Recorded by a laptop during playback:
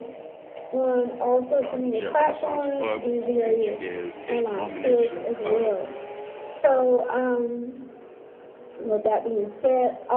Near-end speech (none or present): present